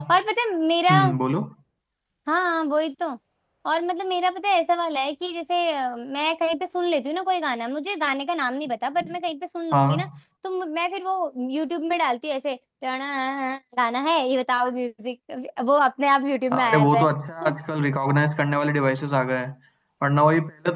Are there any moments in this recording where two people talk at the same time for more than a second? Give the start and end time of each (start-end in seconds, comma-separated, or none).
none